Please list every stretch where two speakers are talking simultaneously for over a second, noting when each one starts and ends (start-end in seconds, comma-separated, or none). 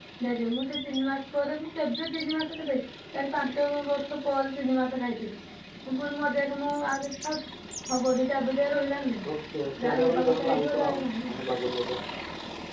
9.8-11.4